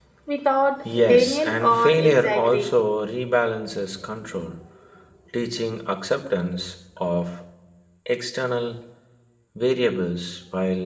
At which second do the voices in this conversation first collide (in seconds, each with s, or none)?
1.0 s